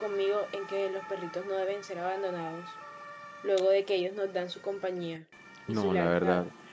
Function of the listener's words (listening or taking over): taking over